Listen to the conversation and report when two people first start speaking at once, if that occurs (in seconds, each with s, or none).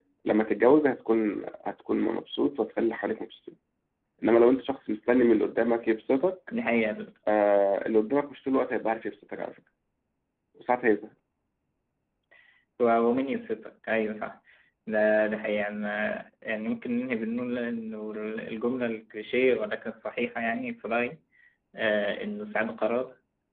none